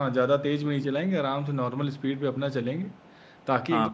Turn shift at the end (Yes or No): Yes